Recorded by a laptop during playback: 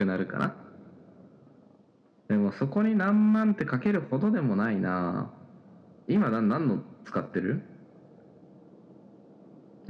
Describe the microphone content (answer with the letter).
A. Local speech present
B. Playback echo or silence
B